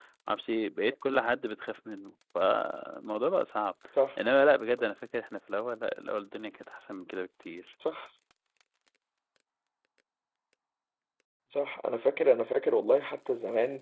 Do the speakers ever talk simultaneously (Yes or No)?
No